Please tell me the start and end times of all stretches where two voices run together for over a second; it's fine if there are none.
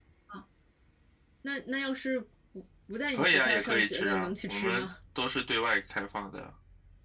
3.1-4.9

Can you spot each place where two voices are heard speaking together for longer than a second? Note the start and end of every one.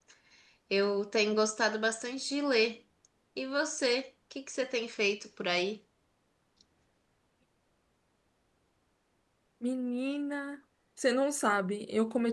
none

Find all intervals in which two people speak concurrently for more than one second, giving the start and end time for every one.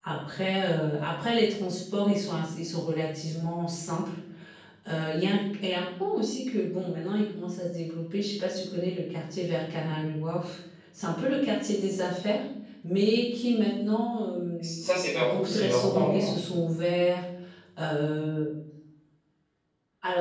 14.6-16.4

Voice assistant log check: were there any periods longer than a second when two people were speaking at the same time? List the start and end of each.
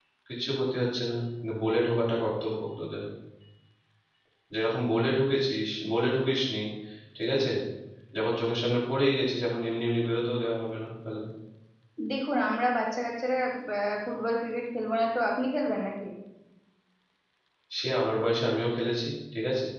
none

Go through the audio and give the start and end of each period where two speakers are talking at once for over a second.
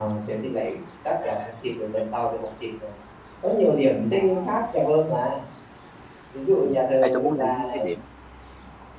6.6-7.9

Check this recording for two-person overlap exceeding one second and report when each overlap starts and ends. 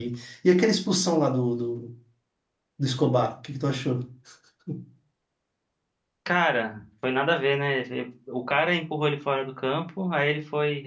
none

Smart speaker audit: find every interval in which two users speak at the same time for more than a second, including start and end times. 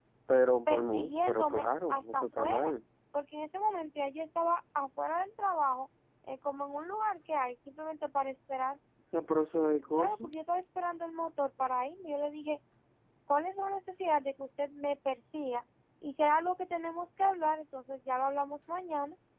0.7-2.7

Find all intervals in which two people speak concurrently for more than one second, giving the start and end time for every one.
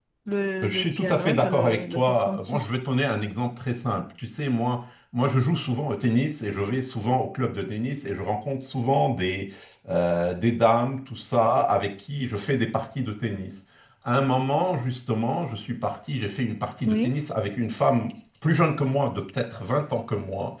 0.6-2.7

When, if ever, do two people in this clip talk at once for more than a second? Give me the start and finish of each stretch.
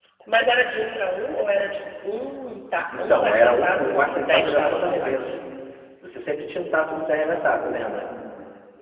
3.0-5.2

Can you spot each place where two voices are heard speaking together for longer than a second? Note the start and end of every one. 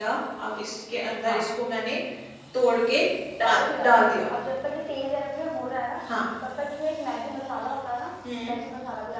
none

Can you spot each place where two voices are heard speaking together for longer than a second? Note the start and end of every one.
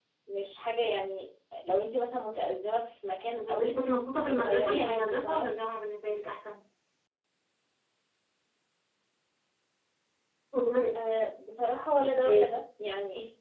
4.1-5.5

